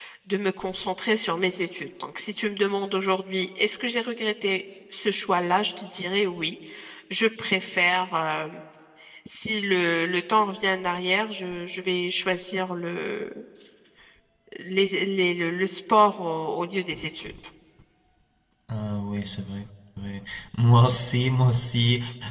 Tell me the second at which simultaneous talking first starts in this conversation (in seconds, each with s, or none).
none